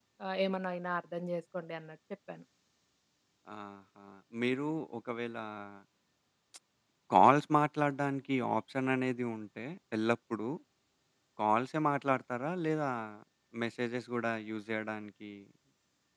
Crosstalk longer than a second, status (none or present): none